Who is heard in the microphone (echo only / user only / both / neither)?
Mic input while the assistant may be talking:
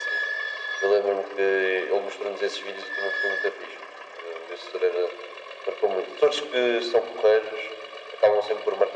echo only